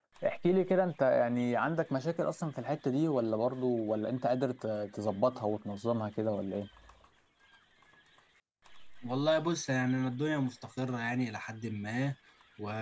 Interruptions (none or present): none